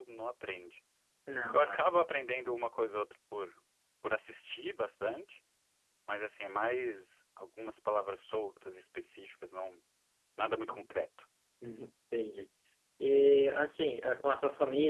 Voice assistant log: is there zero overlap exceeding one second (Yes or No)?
Yes